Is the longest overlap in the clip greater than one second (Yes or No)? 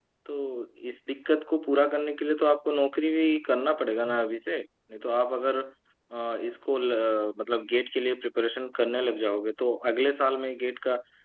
No